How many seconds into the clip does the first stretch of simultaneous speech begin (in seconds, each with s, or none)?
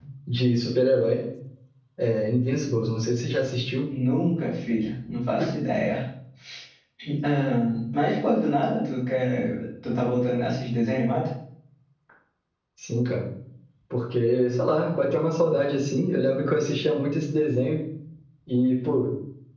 none